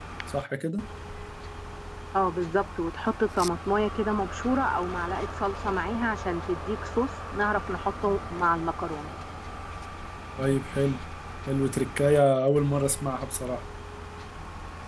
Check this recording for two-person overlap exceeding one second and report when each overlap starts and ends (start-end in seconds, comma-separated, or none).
none